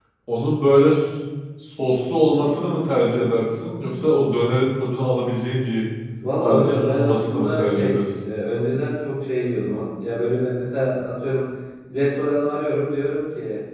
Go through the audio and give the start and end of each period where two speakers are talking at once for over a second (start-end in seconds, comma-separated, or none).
6.4-8.0